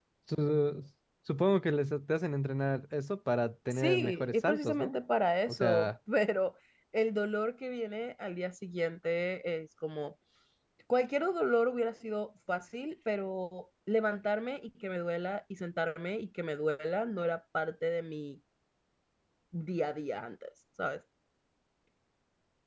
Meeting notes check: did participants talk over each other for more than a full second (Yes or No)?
Yes